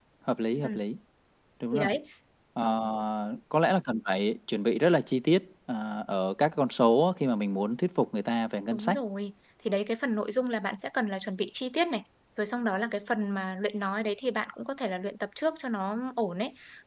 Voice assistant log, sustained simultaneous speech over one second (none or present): none